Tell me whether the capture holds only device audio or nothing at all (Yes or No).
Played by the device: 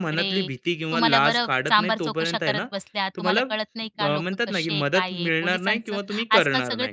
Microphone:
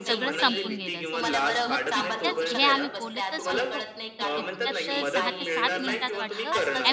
No